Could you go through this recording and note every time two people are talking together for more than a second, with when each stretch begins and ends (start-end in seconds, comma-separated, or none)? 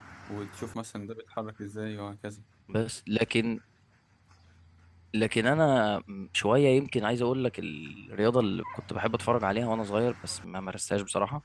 none